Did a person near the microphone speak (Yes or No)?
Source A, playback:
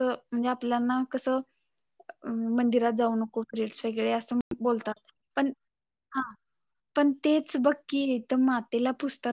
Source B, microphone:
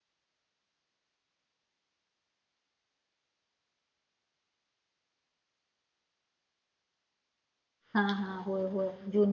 Yes